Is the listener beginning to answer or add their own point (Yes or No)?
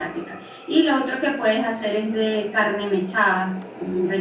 No